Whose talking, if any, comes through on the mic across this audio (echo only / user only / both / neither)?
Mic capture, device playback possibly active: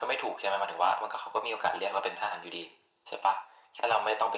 echo only